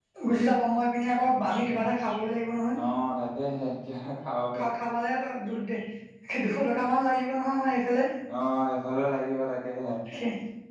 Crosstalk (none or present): none